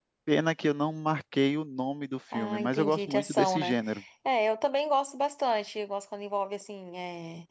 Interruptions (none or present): present